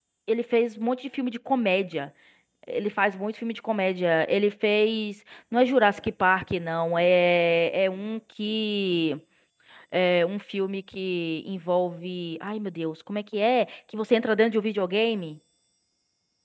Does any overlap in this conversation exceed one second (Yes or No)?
No